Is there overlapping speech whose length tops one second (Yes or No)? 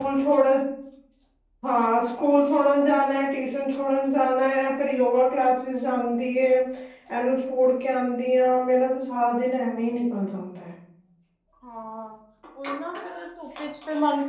No